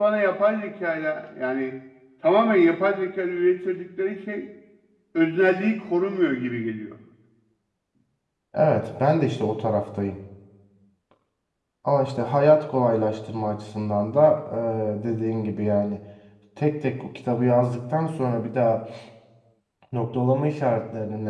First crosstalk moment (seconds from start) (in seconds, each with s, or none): none